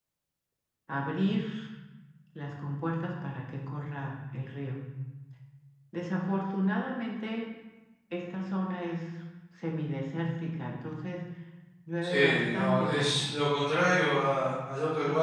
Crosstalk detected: Yes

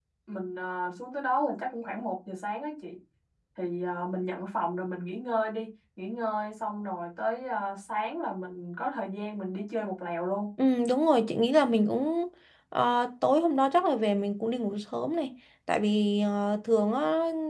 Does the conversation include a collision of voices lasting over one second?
No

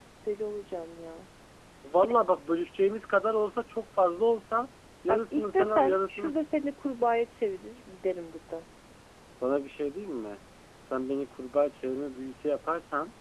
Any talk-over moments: Yes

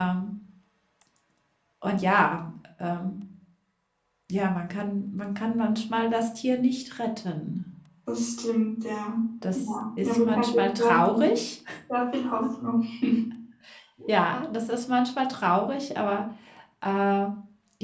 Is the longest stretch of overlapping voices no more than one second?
No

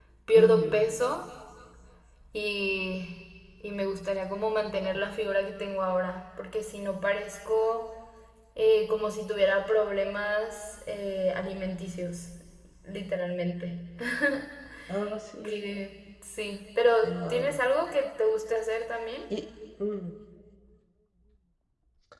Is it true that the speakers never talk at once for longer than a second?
Yes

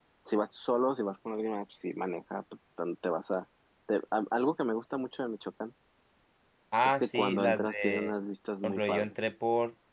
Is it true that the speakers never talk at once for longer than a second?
No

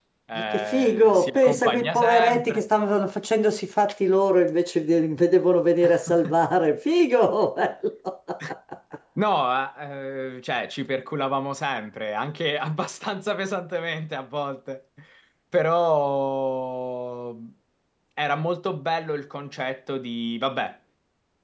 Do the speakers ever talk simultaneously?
Yes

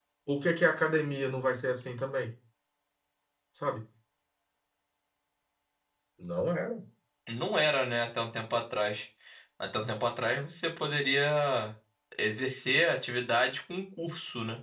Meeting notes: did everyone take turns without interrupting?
Yes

